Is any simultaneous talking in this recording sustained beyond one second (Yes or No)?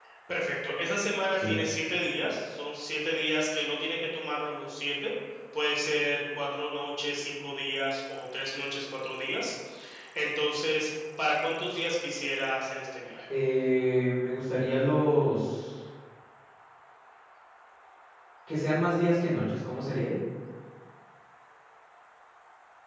No